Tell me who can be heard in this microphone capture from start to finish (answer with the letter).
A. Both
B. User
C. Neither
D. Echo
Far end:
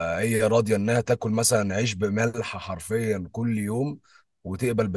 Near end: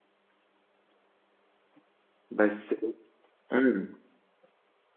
B